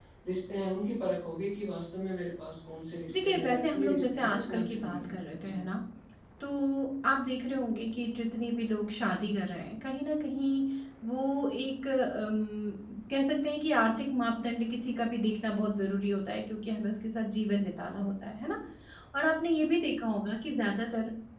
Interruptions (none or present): present